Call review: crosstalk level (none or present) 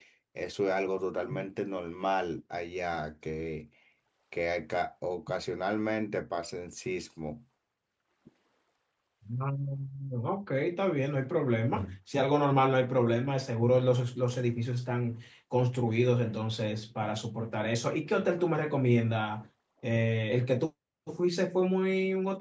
none